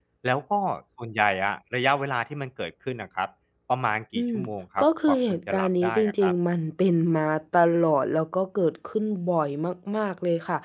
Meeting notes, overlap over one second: present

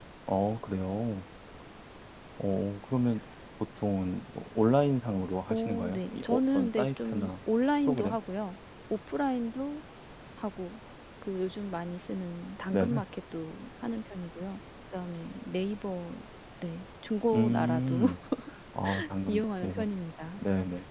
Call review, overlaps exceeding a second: present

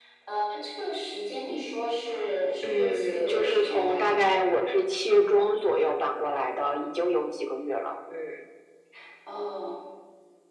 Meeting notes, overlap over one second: present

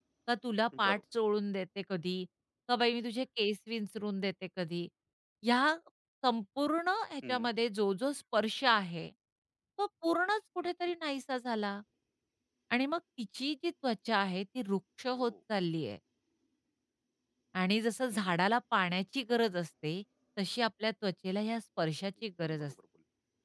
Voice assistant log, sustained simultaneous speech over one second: none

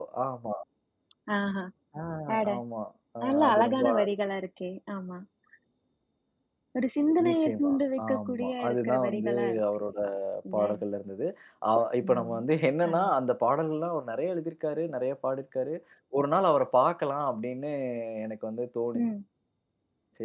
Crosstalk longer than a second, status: present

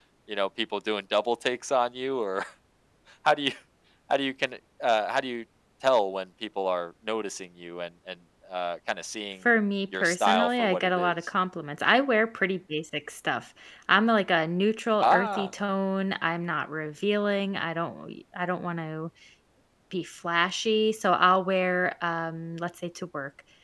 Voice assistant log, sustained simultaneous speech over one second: present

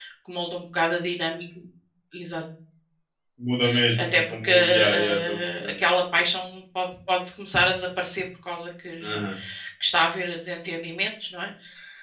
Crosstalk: present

